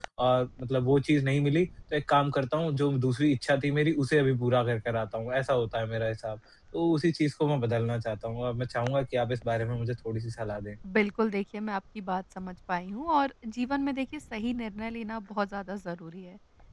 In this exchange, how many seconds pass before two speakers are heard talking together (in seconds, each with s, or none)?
none